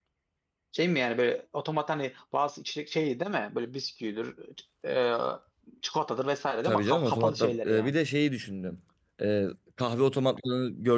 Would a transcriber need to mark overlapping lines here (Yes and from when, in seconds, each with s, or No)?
Yes, from 6.6 s